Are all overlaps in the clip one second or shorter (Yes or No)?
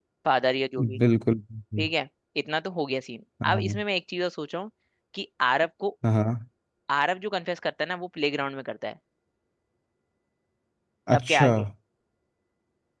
Yes